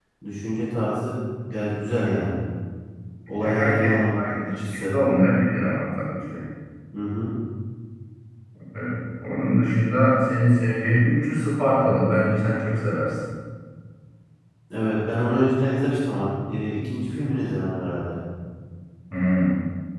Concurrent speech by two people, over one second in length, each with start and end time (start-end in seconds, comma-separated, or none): 3.4-4.9